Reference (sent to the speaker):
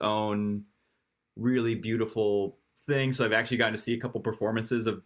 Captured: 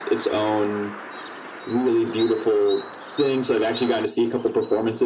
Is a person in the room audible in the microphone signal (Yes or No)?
No